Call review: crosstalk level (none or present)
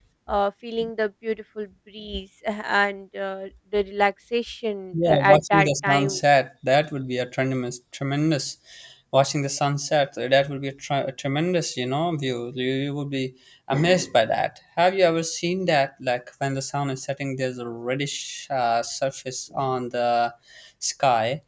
present